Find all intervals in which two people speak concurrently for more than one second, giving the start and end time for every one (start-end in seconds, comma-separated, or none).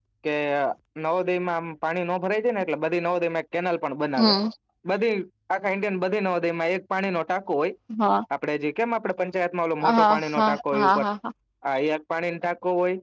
9.8-11.1